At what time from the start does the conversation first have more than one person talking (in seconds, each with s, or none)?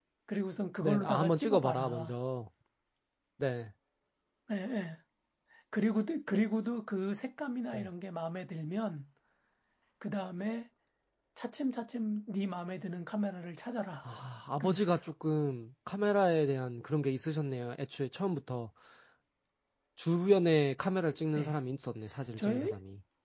0.8 s